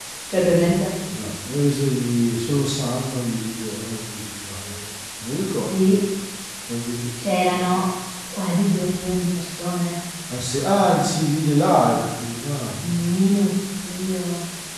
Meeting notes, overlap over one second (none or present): none